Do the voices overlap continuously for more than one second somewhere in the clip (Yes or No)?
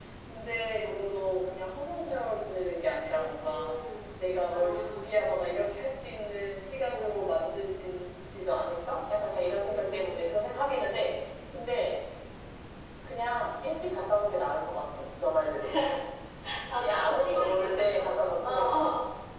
Yes